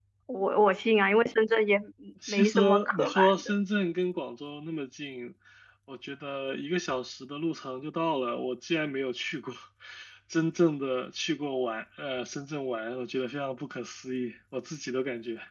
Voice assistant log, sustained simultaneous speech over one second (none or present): present